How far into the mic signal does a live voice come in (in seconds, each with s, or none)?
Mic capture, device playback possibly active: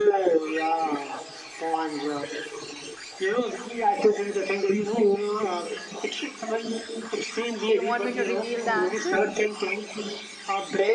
7.6 s